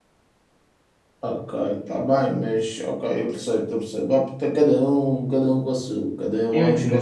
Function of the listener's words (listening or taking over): taking over